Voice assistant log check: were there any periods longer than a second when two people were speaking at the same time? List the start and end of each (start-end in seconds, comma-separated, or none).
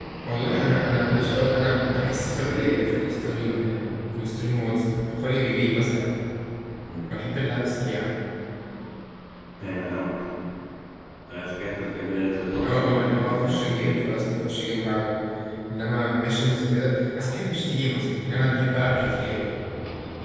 2.3-3.6, 12.6-14.2